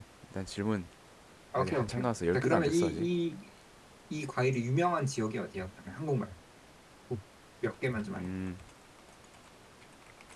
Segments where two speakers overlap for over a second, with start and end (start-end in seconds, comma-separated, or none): 1.6-3.1